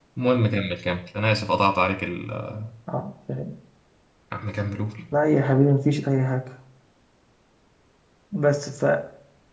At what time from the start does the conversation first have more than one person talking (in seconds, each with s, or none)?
none